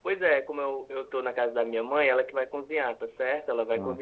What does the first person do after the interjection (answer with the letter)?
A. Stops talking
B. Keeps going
B